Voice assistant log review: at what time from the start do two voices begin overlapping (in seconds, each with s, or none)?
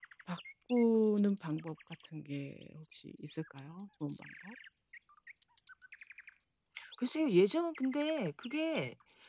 none